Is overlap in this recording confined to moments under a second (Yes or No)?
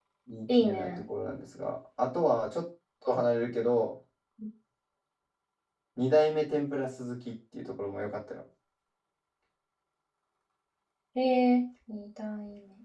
Yes